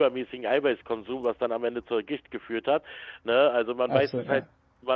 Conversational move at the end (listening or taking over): listening